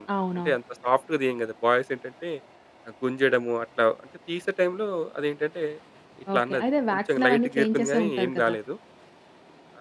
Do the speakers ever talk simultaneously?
Yes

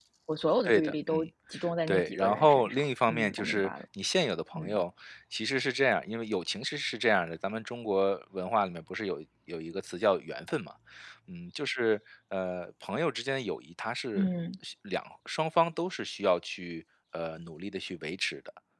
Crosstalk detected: Yes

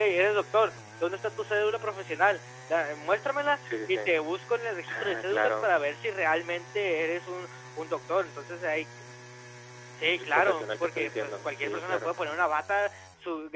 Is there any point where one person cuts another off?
Yes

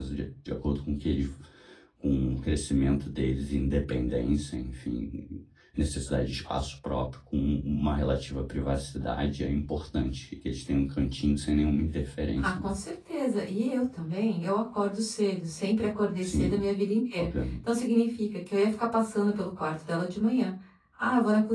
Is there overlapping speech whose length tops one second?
No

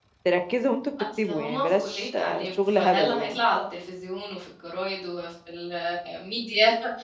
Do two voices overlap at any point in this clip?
Yes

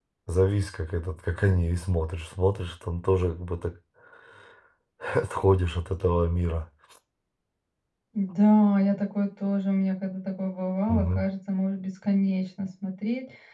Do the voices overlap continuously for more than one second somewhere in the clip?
No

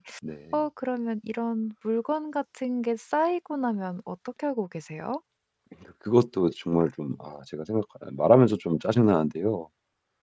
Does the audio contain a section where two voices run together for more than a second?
No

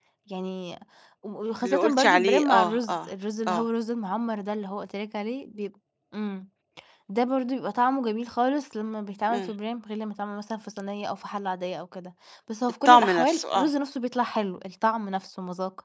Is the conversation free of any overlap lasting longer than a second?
No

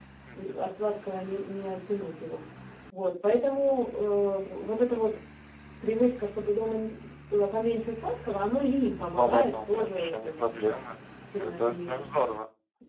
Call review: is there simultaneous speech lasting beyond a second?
Yes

